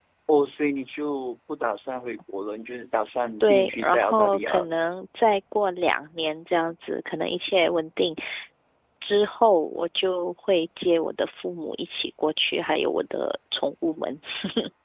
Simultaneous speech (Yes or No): Yes